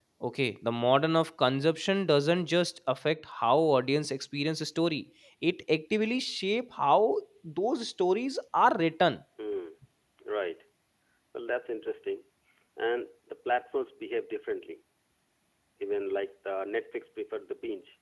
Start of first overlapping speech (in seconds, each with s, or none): none